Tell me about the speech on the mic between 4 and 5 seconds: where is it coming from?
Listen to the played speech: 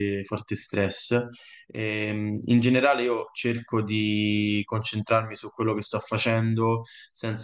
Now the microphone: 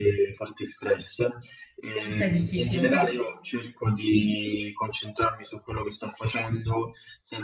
echo only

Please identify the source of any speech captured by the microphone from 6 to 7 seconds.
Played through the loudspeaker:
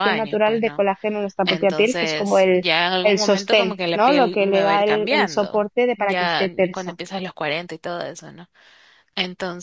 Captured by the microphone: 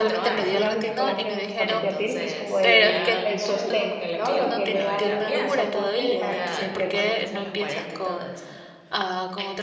both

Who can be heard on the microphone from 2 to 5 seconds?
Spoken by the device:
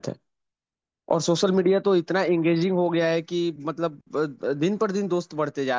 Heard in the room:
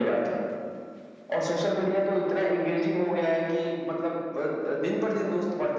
echo only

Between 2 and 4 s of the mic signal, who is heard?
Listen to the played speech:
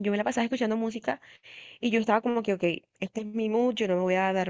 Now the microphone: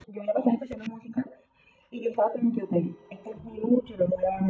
echo only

